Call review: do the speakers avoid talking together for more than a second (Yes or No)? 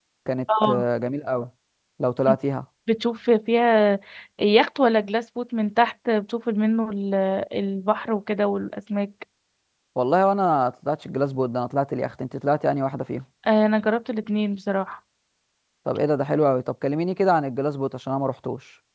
Yes